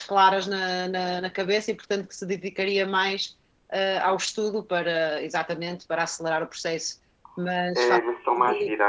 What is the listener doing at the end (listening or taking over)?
taking over